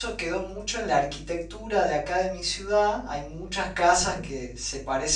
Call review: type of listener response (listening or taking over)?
listening